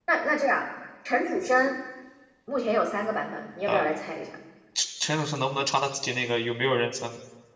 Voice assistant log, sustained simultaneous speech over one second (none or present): none